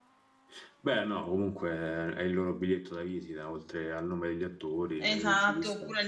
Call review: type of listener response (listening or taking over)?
taking over